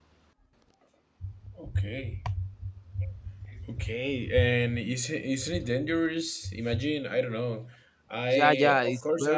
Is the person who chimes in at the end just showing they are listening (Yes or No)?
No